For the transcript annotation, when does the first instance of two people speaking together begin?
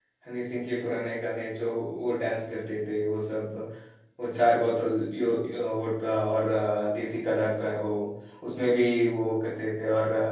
none

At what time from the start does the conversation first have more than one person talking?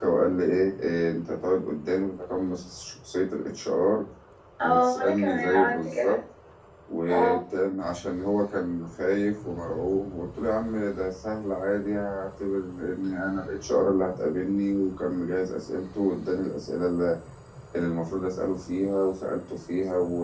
4.6 s

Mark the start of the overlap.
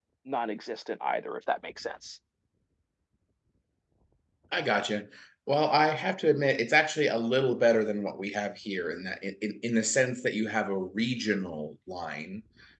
none

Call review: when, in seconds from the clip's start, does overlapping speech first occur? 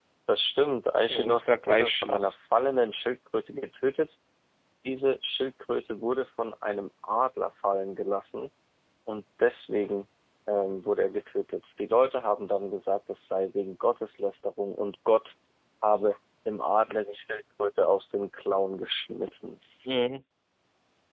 1.1 s

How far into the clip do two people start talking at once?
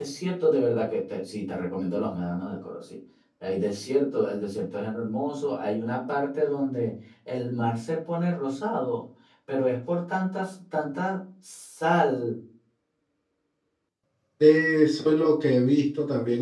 none

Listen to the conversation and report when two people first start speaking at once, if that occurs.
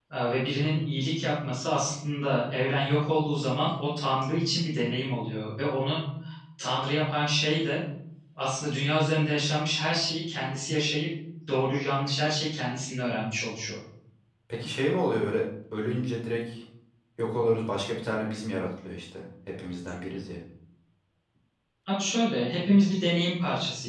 none

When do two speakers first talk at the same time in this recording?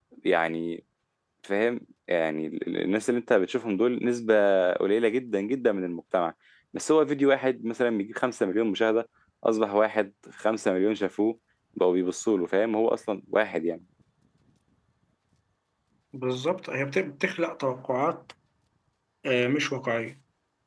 none

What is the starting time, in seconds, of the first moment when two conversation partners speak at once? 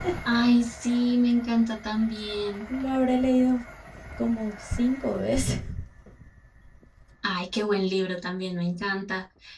none

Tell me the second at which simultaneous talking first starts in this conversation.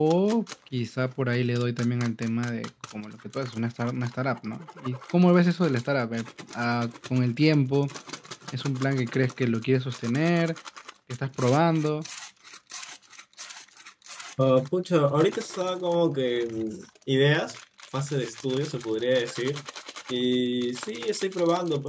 none

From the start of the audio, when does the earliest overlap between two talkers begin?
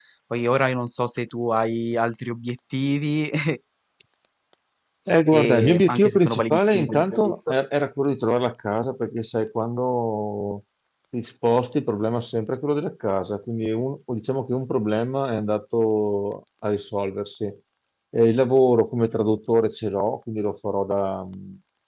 5.3 s

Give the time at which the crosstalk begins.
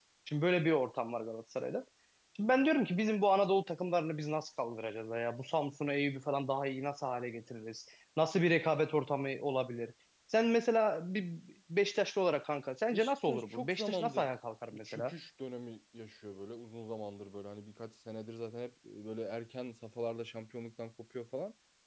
12.9 s

